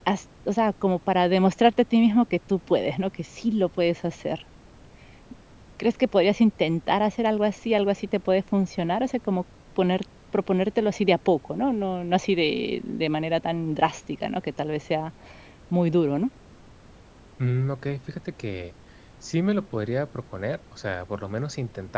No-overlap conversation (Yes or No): Yes